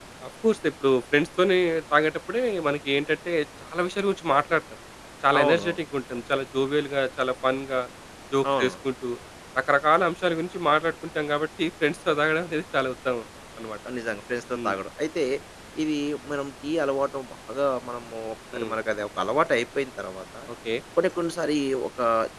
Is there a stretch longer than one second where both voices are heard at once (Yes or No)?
No